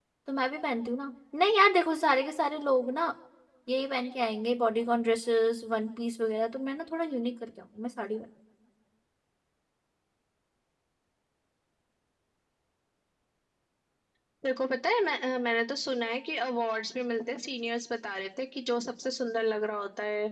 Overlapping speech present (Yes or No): No